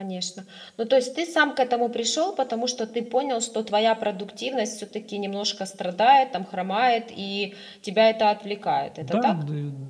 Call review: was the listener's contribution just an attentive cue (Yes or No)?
No